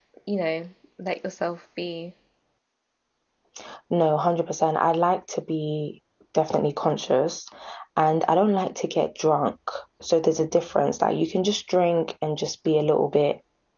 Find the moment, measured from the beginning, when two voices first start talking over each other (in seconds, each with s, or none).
none